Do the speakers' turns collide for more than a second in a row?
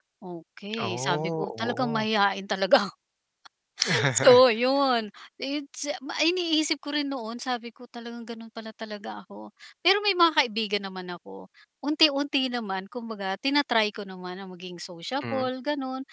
Yes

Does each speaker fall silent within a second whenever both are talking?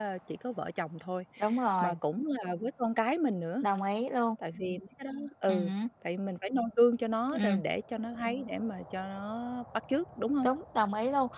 Yes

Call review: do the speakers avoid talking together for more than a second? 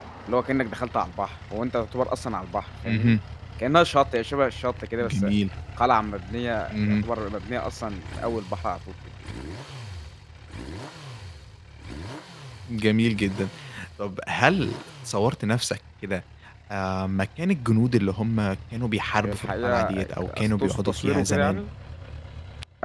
No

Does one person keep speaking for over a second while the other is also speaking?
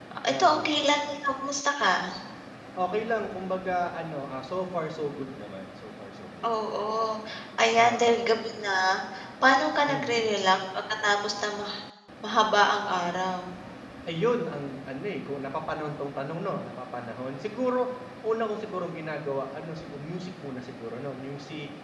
No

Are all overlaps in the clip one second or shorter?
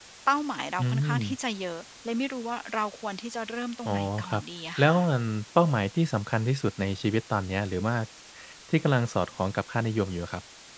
Yes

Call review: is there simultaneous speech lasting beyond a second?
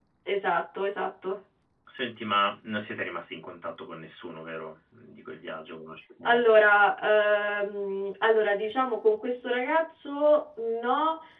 No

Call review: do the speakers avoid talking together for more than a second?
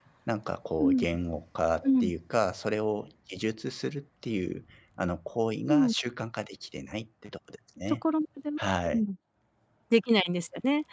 Yes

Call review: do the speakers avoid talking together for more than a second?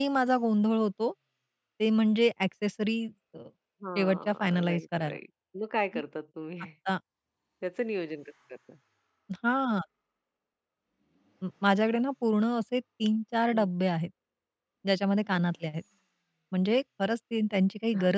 No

